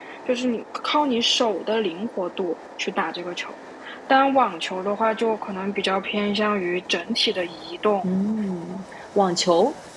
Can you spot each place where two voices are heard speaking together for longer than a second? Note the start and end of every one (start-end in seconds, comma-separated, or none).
none